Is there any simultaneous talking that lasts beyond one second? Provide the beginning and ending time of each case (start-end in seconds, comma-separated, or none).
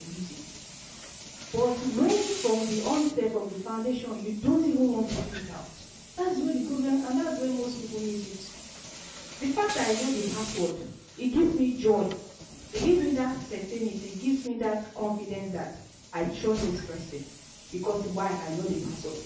none